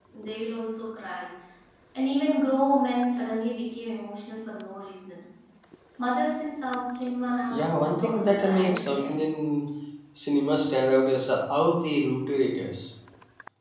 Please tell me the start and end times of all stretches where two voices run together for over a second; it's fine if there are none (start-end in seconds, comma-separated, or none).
7.5-9.1